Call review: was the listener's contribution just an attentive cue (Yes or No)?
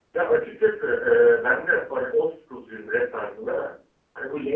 Yes